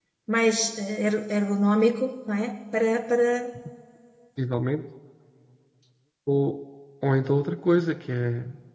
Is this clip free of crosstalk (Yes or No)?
Yes